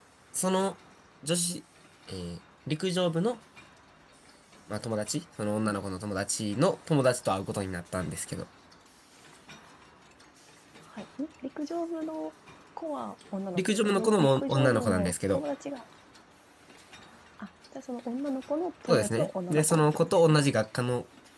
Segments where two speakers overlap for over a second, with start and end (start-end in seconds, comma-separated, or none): 13.6-15.4, 18.9-20.4